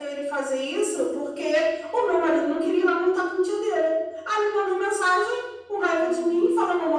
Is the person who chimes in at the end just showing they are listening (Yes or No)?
Yes